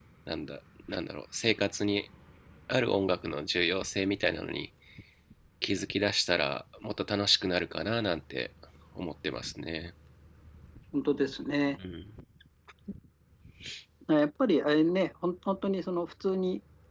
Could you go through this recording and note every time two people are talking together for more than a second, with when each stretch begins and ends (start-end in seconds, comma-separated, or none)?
none